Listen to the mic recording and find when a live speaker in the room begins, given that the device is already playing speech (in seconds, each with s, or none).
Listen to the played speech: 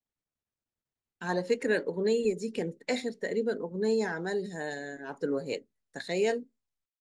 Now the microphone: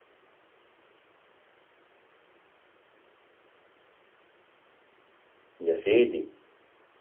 5.6 s